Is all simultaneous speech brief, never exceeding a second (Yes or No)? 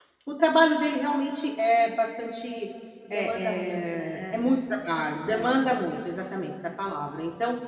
No